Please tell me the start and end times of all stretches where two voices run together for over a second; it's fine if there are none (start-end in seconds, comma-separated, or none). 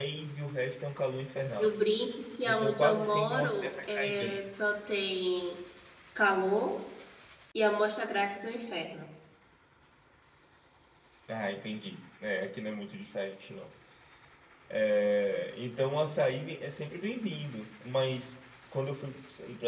2.5-4.4